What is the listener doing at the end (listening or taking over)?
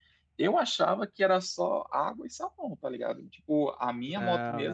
listening